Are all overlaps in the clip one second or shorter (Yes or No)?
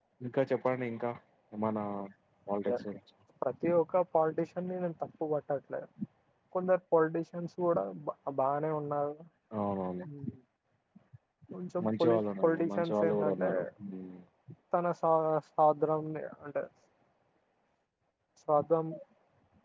No